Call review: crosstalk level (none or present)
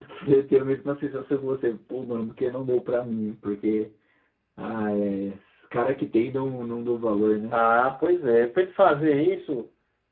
none